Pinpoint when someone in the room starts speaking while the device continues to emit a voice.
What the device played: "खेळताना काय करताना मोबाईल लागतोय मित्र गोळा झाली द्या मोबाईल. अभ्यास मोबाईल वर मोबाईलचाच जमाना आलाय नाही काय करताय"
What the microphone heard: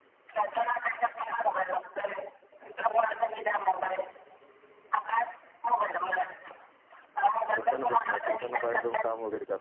8 s

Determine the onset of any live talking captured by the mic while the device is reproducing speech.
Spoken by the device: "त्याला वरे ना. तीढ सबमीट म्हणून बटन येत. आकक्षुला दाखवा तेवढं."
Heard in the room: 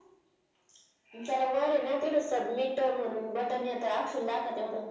none

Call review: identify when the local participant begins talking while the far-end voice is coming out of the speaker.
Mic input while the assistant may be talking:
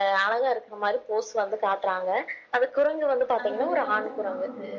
3 s

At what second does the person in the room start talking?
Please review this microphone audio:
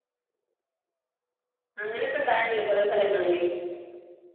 2 s

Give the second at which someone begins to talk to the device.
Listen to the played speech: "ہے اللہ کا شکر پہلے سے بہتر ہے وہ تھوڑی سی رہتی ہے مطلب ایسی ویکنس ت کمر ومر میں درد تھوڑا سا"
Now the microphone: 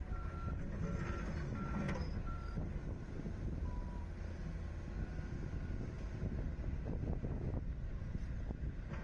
none

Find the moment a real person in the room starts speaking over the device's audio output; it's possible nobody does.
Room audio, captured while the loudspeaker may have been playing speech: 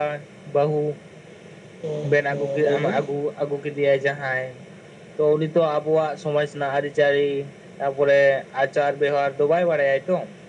2 s

